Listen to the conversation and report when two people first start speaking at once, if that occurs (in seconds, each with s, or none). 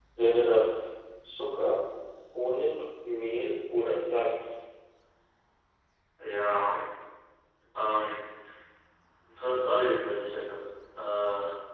none